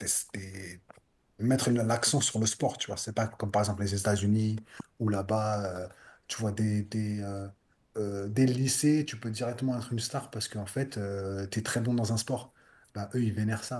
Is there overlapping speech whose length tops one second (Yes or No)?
No